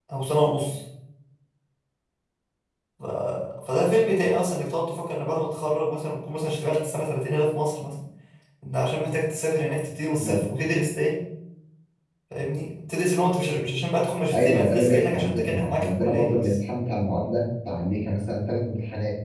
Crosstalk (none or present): present